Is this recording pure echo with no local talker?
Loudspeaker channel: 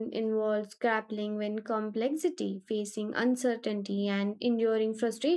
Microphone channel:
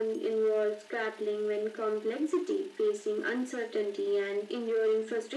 Yes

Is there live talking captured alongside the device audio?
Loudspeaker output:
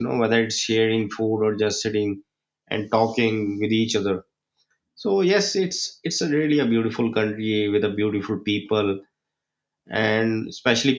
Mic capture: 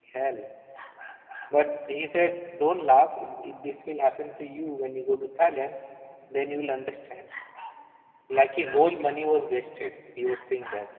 Yes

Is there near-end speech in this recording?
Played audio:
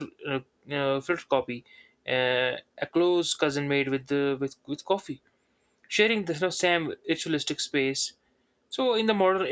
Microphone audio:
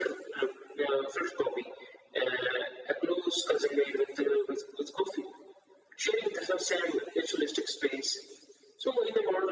No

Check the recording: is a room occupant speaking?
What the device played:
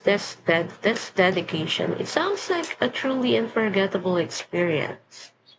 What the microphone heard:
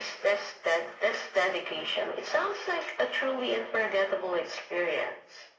No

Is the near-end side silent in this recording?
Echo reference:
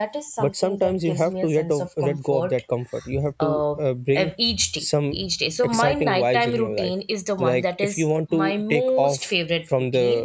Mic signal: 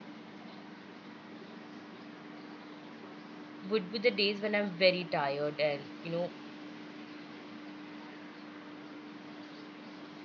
No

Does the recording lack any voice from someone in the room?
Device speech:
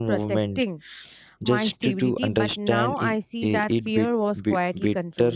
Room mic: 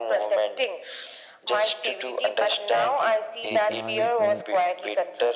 No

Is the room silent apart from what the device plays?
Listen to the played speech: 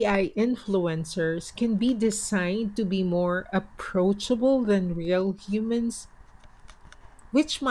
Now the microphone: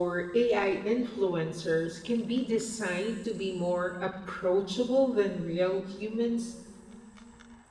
Yes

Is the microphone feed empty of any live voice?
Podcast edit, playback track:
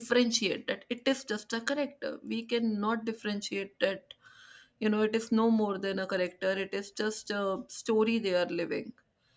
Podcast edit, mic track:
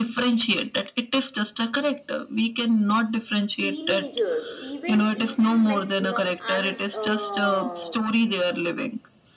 No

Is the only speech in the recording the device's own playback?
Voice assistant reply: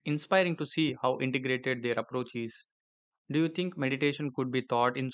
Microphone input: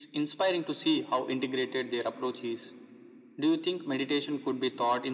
Yes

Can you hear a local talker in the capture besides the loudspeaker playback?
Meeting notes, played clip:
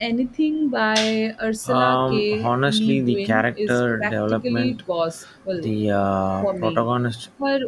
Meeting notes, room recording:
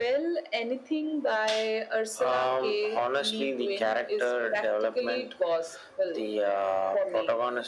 No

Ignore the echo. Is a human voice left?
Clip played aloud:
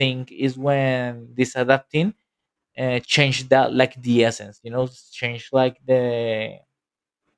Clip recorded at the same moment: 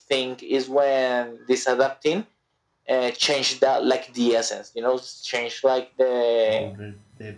Yes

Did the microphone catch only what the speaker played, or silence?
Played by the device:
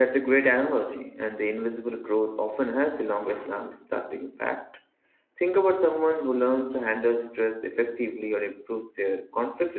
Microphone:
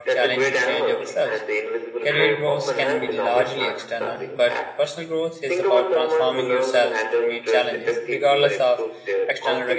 No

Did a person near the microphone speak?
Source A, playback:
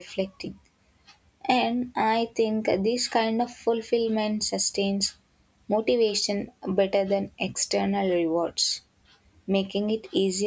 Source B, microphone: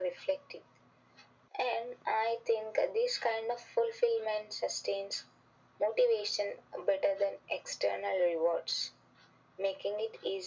No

